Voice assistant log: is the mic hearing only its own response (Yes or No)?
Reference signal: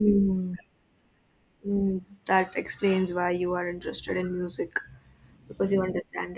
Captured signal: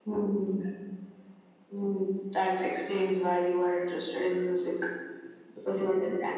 Yes